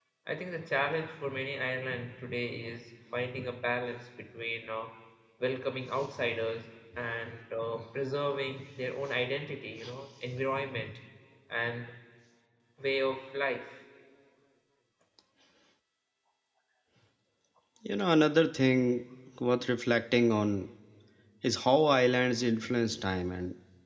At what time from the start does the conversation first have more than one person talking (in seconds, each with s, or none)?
none